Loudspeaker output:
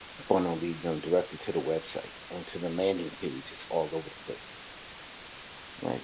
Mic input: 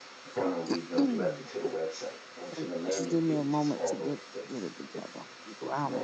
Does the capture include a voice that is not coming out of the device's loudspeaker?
Yes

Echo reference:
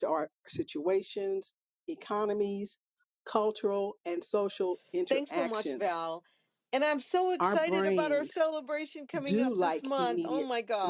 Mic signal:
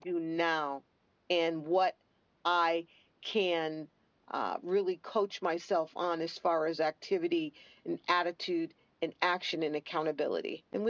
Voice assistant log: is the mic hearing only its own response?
No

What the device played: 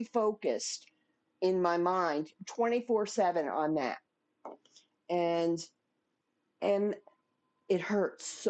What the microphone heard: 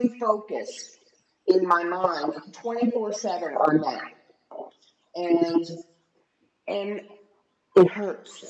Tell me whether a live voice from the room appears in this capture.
No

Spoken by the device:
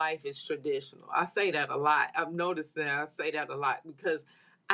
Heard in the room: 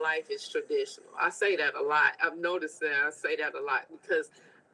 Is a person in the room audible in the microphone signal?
No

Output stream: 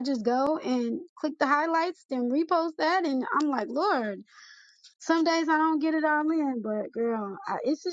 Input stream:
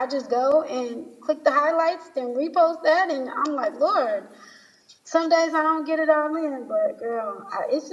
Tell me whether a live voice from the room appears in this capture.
No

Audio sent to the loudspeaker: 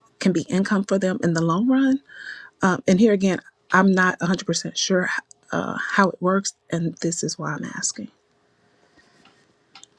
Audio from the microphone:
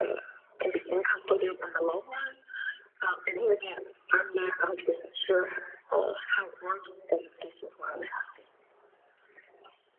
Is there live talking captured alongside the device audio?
No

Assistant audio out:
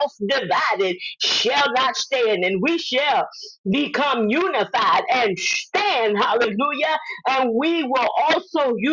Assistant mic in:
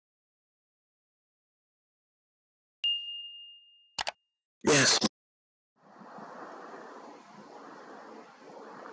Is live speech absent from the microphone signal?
No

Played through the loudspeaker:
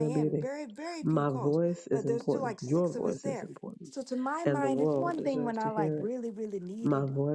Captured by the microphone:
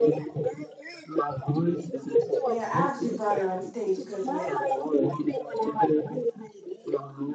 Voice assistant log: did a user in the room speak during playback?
Yes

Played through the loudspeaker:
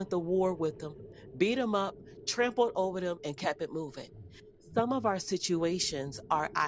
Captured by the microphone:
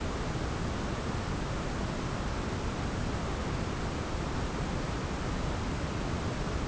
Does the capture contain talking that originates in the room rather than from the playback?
No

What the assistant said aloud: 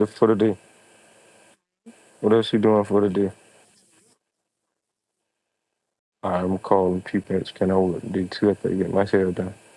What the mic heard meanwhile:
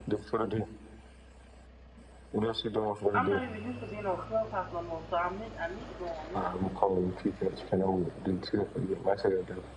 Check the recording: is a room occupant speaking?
Yes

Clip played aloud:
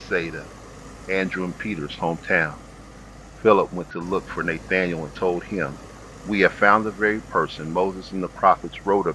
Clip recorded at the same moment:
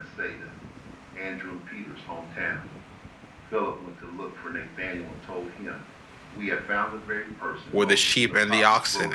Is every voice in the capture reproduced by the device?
No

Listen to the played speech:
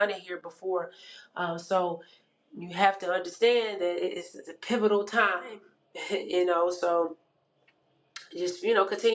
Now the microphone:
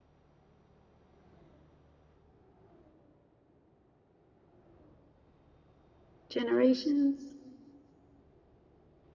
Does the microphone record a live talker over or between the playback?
Yes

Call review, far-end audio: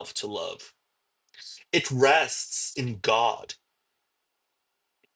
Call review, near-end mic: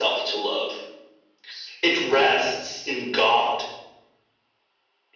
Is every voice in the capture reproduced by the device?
Yes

